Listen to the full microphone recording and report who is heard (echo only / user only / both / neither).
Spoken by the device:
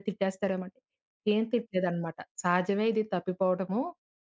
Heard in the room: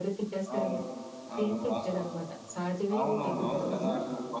both